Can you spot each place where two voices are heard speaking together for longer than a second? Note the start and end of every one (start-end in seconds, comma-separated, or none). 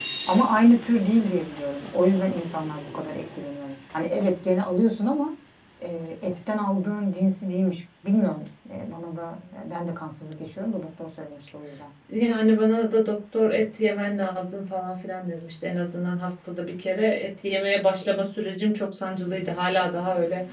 none